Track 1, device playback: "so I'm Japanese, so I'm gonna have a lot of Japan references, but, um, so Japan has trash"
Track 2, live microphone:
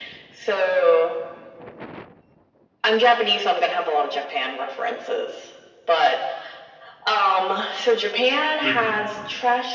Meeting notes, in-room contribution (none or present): present